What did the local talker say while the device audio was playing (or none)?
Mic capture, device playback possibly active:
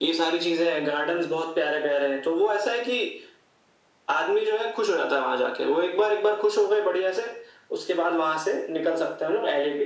none